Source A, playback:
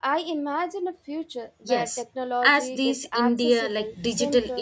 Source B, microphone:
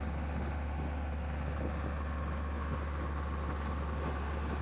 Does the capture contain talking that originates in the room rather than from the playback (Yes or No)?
No